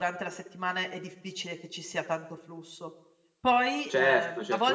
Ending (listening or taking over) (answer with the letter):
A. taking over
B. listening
A